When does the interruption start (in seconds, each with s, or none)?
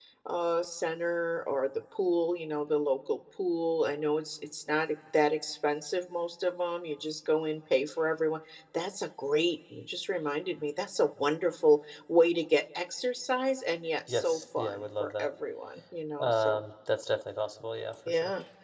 14.1 s